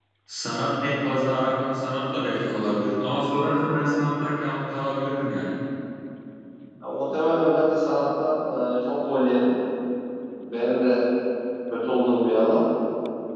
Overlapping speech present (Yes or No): No